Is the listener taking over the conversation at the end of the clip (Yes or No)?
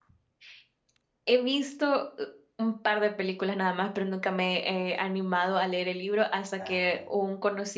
No